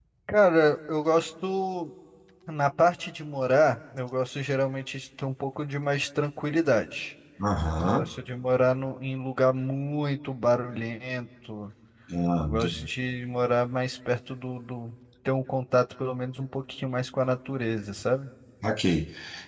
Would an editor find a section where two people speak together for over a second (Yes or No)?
No